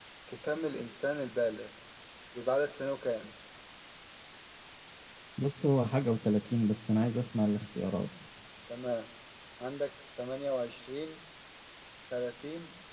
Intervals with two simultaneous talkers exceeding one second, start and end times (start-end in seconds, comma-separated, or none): none